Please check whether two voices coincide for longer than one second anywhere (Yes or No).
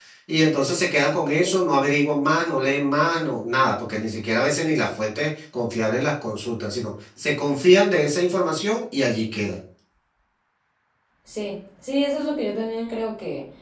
No